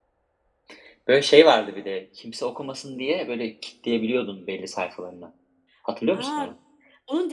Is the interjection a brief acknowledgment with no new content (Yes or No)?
No